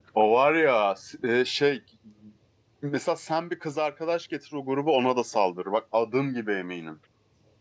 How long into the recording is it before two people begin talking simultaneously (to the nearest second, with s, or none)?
none